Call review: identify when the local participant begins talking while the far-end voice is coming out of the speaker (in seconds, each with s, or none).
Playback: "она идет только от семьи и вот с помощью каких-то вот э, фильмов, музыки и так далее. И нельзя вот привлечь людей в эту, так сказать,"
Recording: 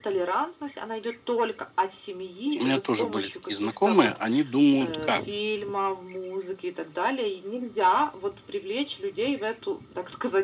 2.4 s